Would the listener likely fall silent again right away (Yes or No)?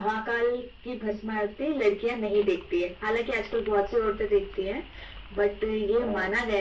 Yes